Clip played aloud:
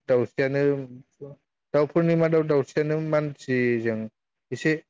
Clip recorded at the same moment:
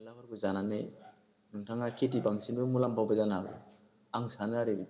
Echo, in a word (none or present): none